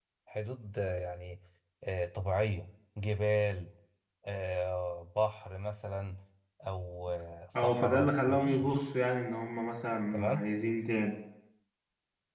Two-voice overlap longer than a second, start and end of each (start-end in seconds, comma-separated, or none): 7.6-8.9